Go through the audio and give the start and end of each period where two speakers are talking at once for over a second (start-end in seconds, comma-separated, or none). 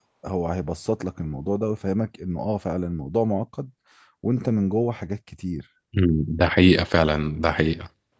none